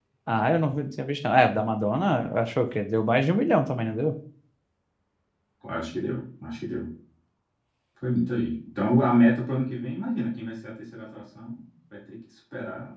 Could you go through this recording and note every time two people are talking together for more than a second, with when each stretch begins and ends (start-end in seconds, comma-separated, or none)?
none